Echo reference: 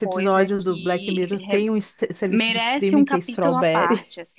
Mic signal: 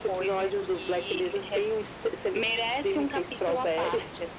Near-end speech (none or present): none